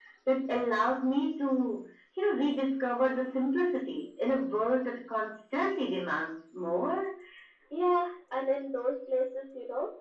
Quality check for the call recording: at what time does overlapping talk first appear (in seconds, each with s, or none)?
none